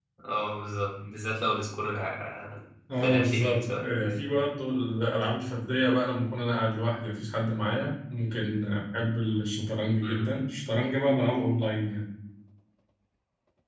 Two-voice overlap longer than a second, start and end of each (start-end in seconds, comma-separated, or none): 3.0-4.3